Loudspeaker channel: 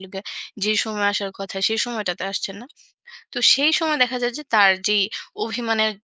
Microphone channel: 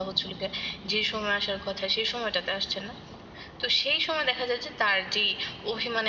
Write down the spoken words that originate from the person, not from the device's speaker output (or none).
none